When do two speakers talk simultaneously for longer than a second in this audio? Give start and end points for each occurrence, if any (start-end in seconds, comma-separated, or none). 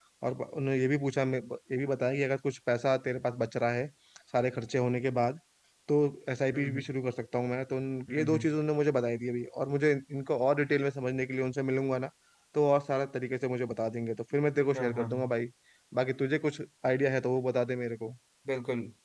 none